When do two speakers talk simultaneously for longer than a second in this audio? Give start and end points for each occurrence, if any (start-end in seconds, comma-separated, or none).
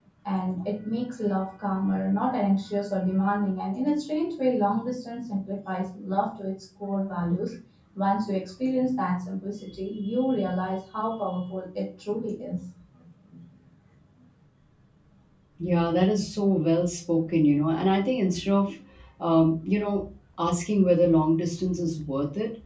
none